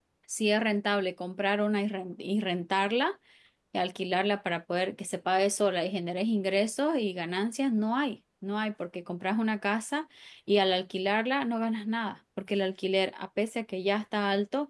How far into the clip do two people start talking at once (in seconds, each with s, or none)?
none